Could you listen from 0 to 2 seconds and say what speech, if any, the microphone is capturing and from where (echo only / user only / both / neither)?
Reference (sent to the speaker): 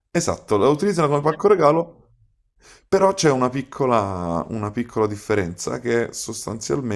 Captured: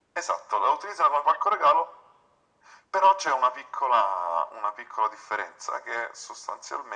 echo only